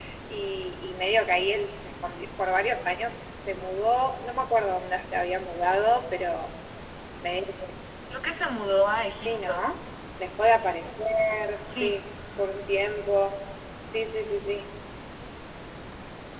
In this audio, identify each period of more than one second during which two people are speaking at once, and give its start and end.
none

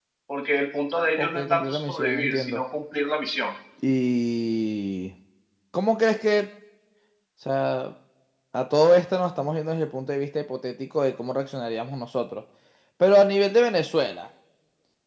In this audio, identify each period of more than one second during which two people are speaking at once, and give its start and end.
1.2-2.6

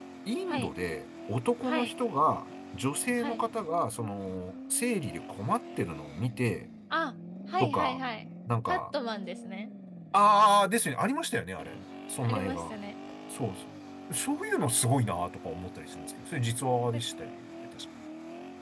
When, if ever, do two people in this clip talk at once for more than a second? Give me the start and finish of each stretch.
none

